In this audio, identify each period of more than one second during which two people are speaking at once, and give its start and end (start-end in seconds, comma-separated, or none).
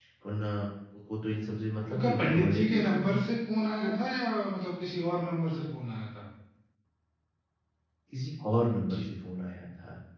1.9-3.2